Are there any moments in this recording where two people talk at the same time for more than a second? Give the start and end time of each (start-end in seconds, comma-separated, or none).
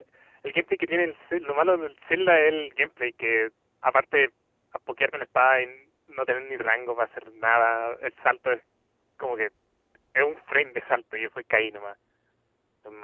none